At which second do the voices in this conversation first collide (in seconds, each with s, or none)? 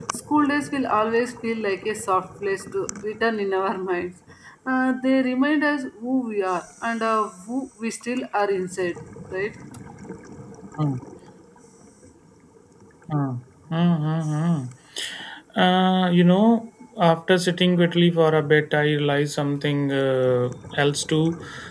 none